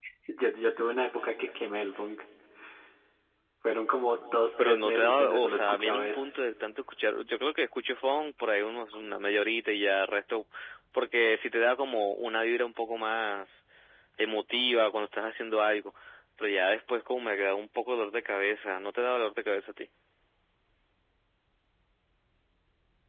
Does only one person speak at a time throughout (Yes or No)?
No